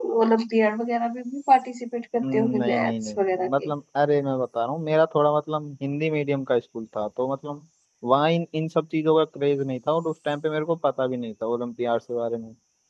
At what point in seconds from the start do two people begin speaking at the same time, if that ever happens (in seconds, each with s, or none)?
2.2 s